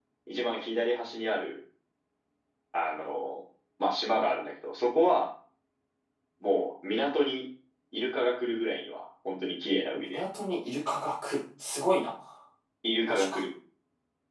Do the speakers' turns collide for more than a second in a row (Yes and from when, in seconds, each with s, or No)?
No